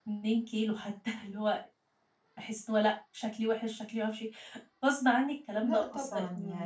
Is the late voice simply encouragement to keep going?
No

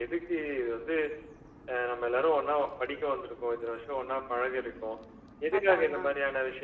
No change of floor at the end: Yes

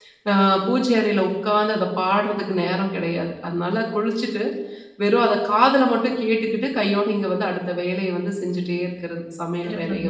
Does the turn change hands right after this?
Yes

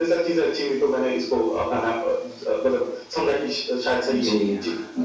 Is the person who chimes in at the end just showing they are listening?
No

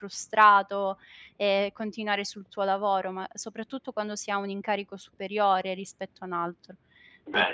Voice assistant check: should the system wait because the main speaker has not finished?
Yes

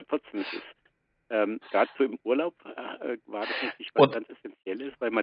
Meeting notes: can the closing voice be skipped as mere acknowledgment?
Yes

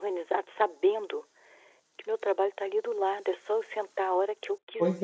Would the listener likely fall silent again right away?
No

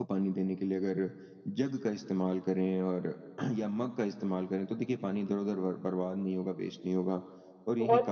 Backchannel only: Yes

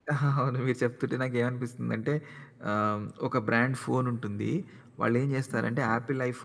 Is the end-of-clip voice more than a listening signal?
No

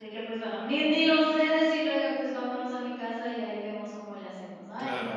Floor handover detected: Yes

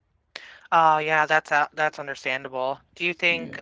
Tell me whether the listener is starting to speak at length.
No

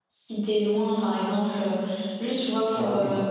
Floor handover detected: No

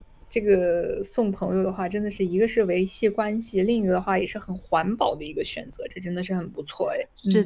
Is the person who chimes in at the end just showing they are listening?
No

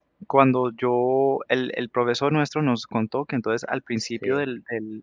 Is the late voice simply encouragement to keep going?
Yes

